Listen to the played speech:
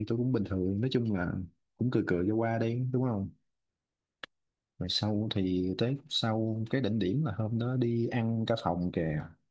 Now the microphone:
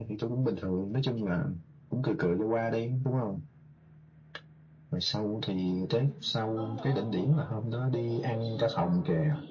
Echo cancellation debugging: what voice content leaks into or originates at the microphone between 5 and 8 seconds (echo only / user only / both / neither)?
both